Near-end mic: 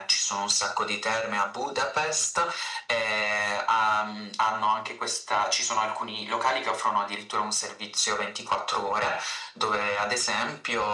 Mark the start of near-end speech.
none

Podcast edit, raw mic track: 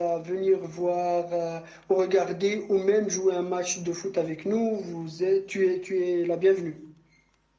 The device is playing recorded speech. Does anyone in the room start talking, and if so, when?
none

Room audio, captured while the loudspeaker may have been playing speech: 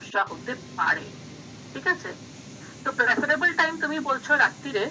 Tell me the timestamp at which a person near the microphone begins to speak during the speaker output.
none

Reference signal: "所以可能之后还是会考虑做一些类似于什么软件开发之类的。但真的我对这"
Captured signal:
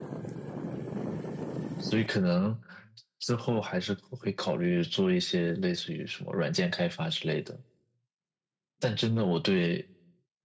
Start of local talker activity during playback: none

